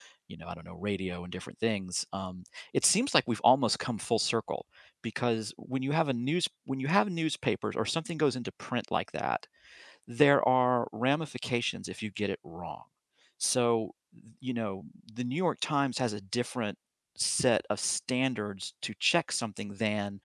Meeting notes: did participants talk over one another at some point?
No

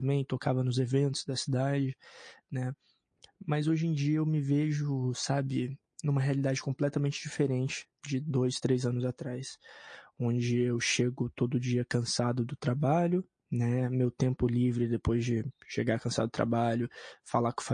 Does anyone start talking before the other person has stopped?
No

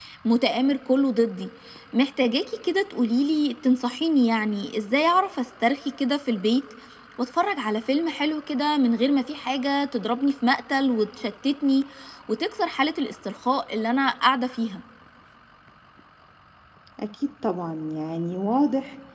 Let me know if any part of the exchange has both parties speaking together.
No

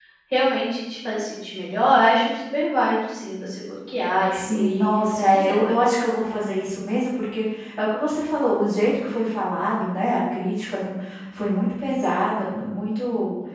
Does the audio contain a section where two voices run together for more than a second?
Yes, from 4.3 s

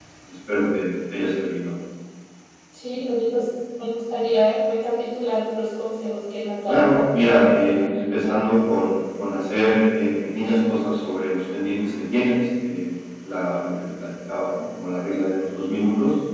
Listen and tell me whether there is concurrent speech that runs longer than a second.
Yes, from 6.7 s

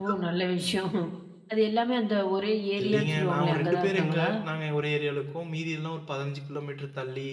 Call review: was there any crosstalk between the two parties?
Yes, from 2.8 s

